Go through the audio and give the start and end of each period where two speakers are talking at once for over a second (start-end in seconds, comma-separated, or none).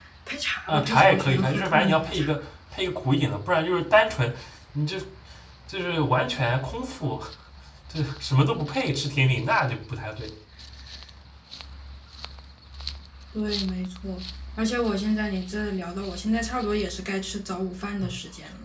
0.7-2.3